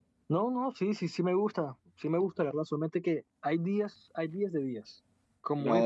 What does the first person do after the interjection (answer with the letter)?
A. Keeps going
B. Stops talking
A